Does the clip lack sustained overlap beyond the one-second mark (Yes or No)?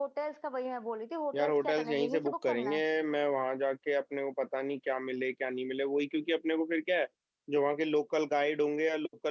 No